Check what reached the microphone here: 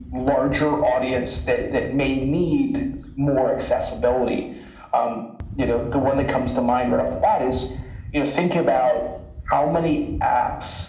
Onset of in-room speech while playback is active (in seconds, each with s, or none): none